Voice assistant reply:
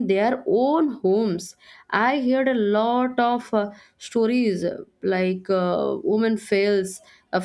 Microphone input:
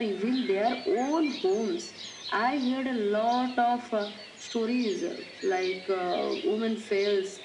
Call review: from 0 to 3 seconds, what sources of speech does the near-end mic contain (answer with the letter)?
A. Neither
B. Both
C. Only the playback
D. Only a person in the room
C